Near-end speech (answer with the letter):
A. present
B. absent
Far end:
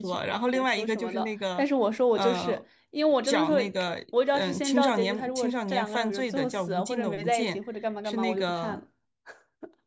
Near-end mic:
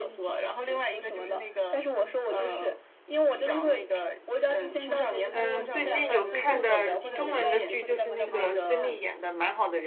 A